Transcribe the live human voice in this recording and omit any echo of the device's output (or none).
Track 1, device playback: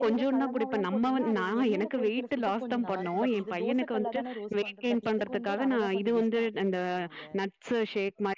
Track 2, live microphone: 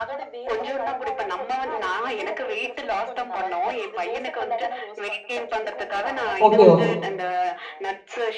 ஓகே ஓகே